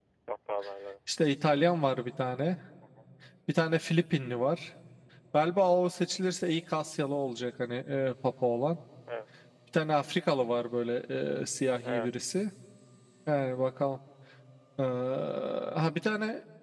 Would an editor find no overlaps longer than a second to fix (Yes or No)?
Yes